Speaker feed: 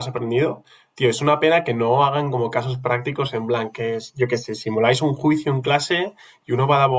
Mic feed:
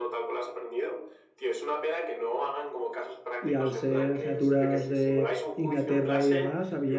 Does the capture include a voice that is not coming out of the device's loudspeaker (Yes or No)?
Yes